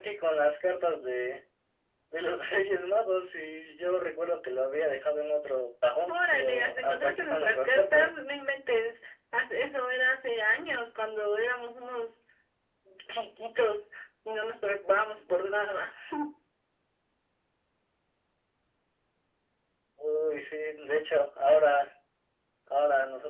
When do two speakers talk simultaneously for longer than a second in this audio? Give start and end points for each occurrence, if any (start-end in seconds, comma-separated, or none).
6.1-8.1